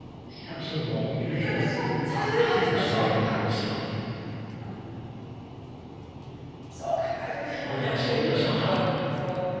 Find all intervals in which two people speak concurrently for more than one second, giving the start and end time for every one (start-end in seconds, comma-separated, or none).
2.1-3.4, 7.5-8.8